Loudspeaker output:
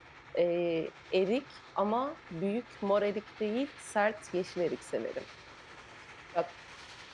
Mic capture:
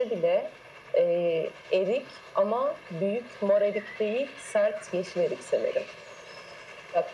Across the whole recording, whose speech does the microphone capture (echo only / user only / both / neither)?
echo only